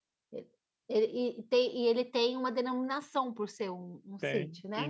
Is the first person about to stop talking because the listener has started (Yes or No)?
Yes